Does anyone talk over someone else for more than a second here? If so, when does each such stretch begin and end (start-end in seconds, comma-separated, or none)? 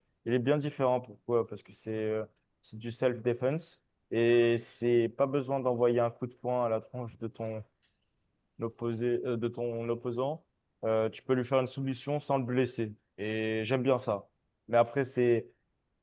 none